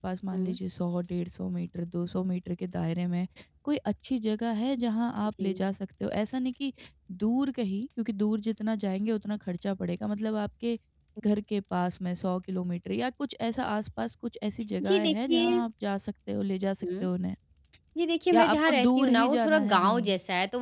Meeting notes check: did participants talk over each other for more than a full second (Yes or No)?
Yes